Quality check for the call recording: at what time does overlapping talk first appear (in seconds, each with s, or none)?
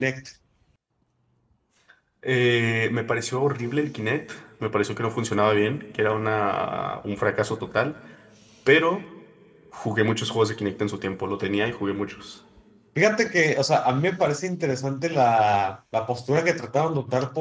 none